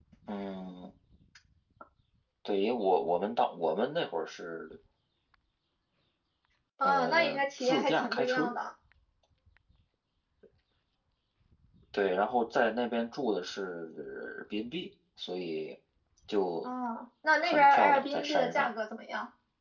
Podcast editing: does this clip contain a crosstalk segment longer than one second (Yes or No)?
Yes